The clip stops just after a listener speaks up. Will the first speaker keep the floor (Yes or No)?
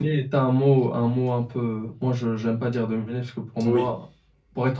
Yes